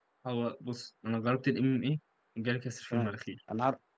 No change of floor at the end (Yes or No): No